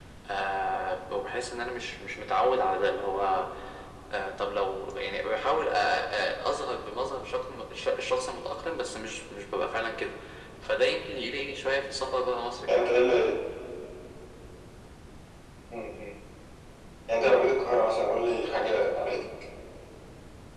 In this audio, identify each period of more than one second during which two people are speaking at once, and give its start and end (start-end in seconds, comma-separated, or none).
none